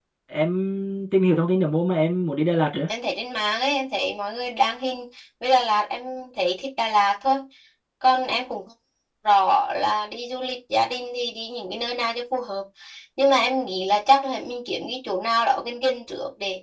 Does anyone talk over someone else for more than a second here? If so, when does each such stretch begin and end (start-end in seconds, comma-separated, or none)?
none